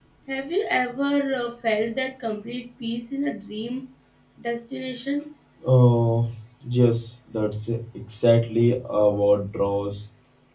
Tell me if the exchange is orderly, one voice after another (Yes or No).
Yes